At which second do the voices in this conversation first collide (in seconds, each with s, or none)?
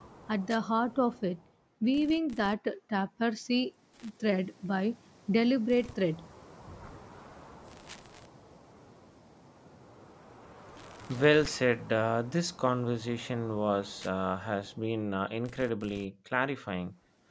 none